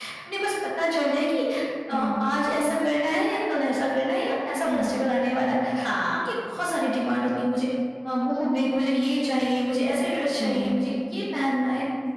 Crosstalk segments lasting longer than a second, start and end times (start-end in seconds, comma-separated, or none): none